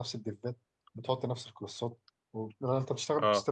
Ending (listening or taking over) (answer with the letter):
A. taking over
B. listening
B